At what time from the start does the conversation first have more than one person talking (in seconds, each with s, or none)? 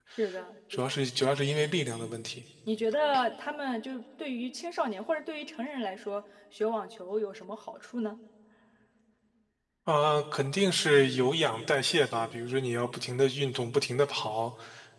none